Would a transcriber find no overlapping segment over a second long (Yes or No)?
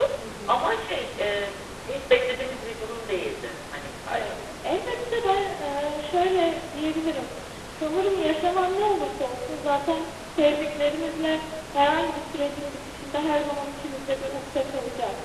Yes